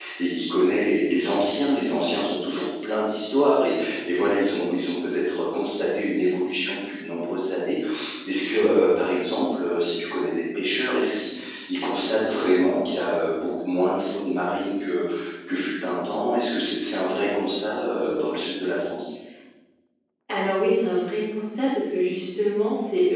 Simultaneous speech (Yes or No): No